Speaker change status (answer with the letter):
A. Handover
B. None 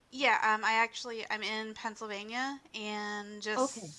B